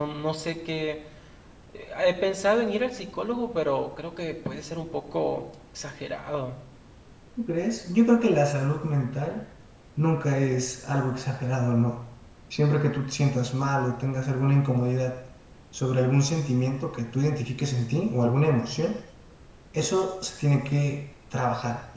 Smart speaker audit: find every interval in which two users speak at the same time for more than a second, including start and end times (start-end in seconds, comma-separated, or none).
none